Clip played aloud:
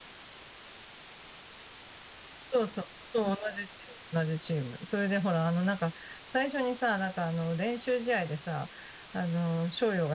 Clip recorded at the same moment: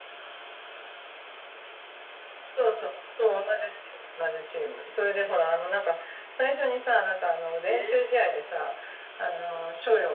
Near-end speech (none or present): present